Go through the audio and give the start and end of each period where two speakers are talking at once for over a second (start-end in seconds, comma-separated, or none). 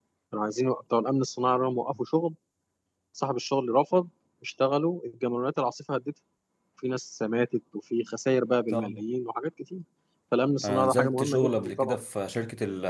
10.6-12.0